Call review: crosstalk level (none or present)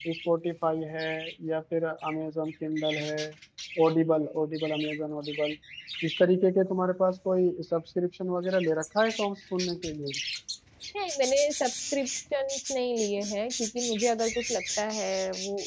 none